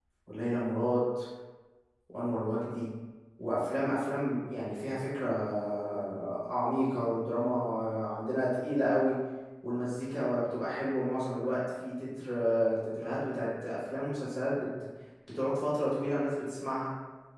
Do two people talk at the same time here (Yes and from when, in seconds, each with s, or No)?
No